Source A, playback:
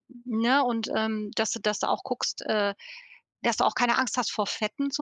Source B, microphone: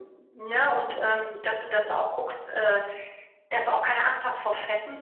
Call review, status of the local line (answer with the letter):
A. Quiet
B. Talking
A